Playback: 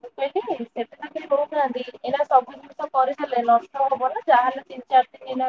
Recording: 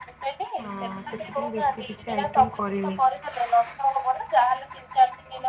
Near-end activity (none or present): present